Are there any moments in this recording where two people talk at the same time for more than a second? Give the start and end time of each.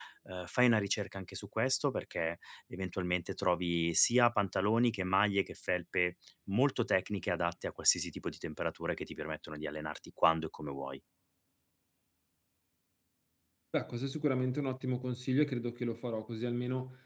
none

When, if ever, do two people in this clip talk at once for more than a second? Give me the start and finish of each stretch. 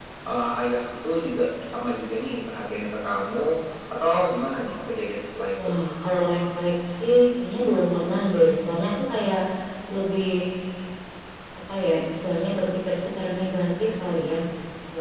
none

